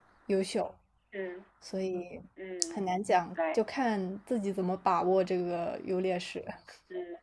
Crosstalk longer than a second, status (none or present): none